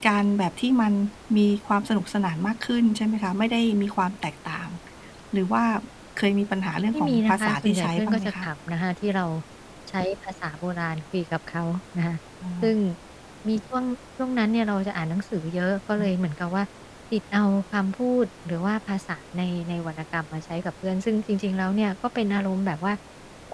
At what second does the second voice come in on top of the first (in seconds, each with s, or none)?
6.9 s